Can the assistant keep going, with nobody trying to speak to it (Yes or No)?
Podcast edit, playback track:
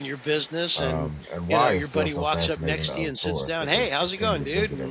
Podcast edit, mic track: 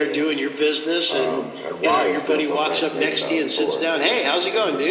Yes